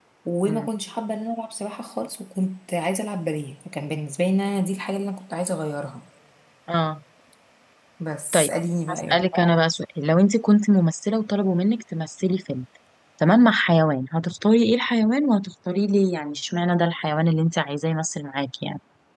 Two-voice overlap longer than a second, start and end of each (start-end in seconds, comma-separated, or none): none